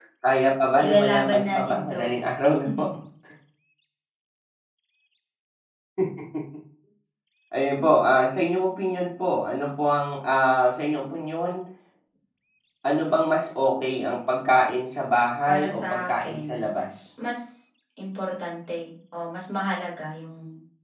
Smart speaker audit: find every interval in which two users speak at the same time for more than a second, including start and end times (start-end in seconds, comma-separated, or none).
0.8-2.2, 15.5-16.9